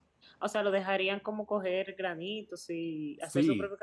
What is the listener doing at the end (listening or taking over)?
taking over